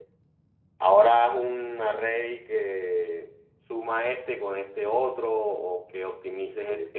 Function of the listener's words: listening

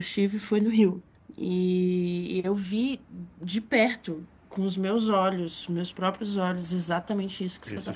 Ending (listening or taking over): listening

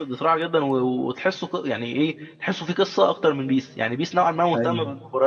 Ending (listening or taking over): listening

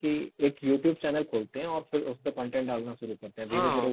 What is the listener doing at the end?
taking over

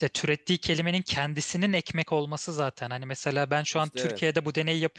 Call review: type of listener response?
listening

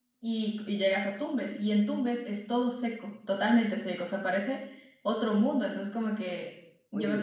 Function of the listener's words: listening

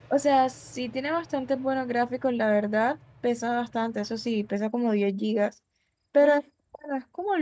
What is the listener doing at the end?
listening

